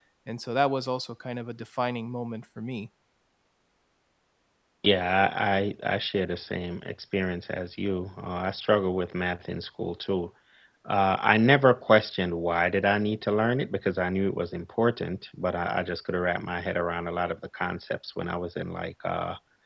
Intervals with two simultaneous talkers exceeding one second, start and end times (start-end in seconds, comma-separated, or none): none